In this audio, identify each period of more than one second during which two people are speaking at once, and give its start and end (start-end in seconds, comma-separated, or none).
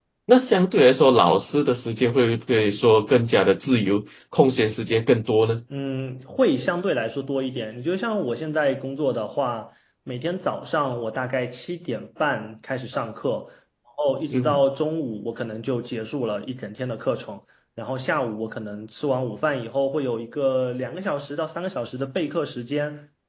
none